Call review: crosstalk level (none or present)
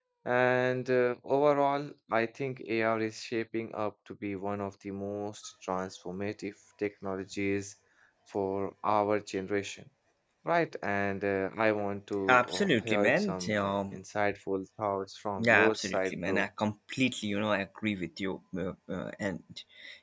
present